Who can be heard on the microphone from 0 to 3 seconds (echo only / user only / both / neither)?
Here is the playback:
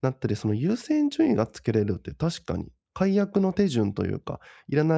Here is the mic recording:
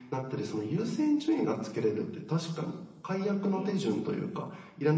echo only